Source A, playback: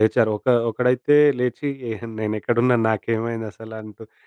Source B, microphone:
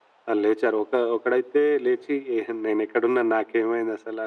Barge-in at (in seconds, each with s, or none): none